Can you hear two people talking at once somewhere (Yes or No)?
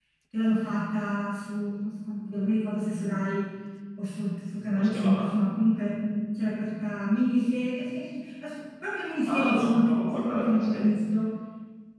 Yes